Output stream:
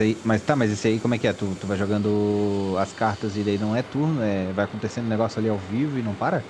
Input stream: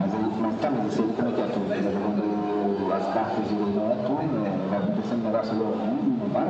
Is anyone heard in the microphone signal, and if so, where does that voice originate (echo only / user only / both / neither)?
both